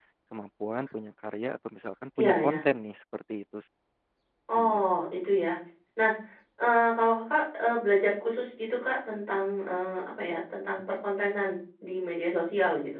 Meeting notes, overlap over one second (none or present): none